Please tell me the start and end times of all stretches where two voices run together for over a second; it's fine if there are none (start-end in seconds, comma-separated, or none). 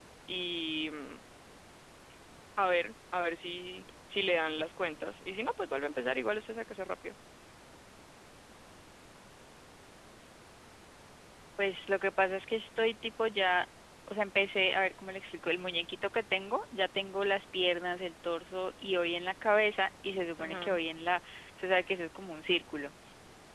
none